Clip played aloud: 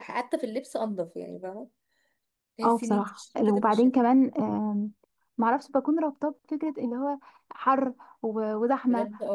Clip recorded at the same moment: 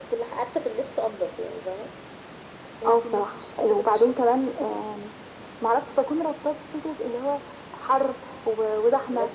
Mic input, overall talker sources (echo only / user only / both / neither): echo only